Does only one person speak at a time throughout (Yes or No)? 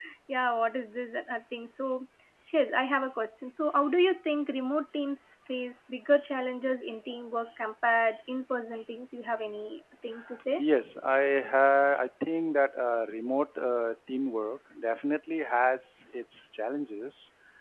Yes